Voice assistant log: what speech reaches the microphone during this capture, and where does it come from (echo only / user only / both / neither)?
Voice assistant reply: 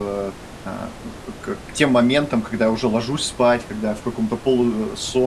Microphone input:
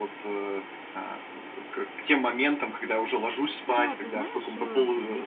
both